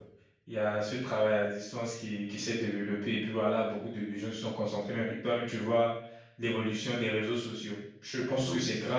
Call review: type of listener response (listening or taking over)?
listening